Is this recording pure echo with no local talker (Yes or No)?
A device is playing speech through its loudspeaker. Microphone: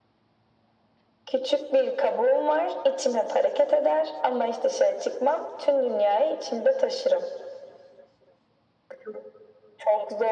Yes